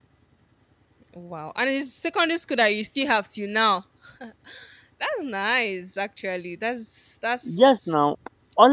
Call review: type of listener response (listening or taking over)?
taking over